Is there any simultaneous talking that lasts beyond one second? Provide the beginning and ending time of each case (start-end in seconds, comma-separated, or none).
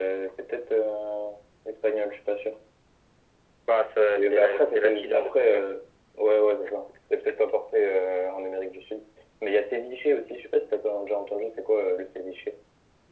4.2-5.6